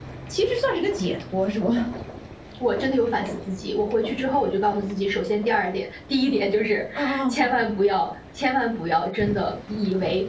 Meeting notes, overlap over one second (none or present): none